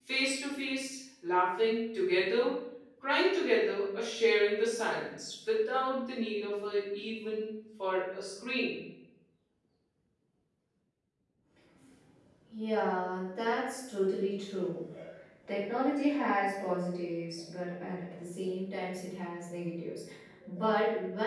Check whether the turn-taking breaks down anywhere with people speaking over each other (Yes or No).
No